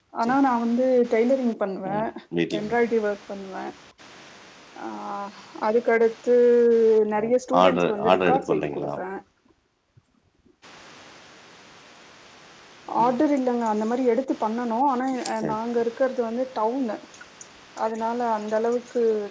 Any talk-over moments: Yes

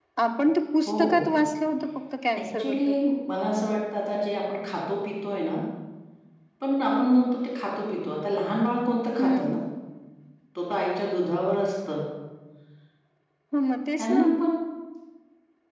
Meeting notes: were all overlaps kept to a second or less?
Yes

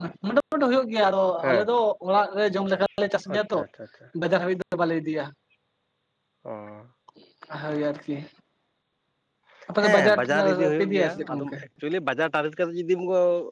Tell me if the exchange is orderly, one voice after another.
No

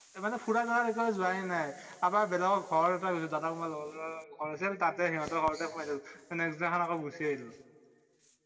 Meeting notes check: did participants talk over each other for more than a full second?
No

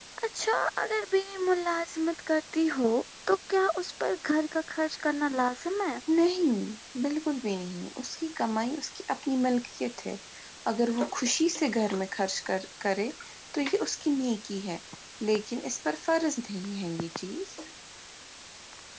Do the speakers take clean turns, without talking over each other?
Yes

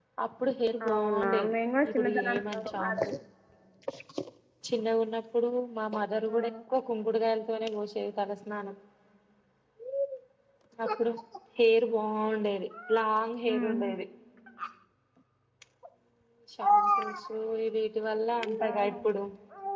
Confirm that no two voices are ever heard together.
No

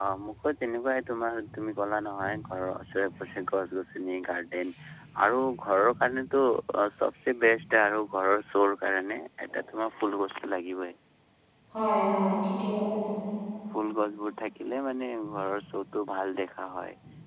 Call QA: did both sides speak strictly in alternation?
Yes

